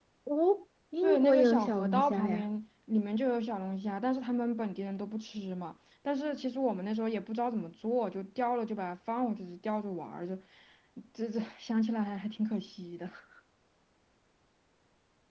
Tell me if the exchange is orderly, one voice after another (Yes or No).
No